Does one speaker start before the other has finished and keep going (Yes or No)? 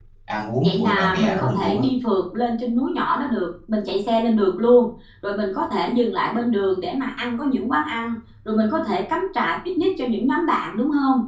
Yes